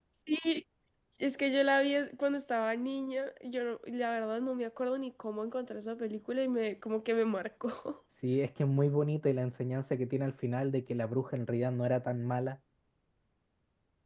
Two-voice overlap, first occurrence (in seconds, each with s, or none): none